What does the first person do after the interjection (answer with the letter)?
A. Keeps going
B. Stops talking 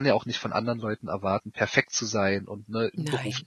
A